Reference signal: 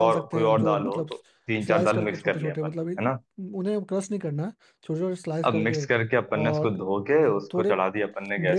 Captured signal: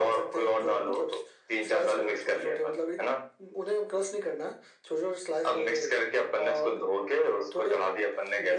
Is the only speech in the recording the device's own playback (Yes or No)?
Yes